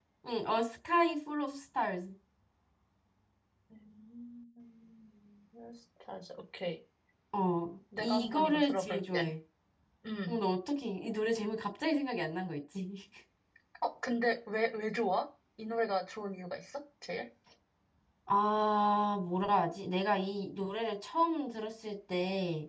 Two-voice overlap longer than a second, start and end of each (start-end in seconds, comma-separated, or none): 8.0-9.3